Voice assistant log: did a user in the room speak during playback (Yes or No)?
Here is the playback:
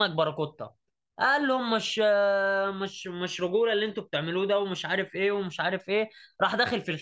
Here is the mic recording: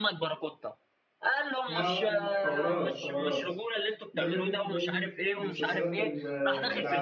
Yes